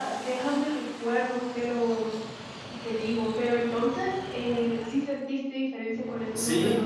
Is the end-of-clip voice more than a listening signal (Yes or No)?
Yes